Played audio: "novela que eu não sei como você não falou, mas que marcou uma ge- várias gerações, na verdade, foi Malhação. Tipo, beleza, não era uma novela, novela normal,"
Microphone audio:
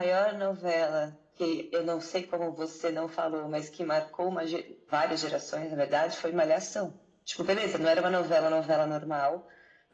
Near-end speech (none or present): none